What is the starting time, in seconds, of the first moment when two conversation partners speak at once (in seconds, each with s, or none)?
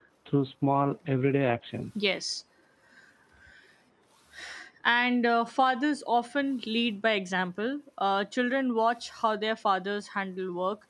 none